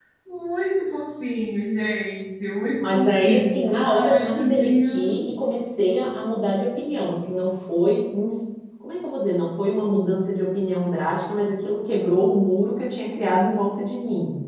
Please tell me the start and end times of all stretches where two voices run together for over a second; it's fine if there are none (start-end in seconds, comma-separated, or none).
2.8-5.1